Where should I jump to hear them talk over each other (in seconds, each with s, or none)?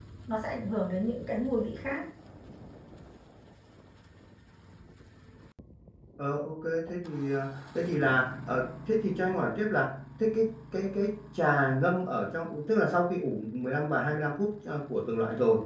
none